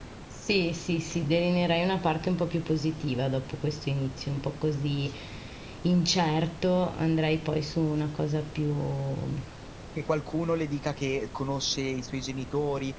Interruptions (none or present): none